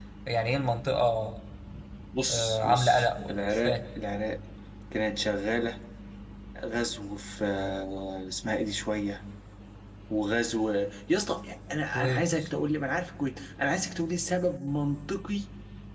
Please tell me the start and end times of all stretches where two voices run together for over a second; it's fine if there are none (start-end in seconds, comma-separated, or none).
2.3-3.8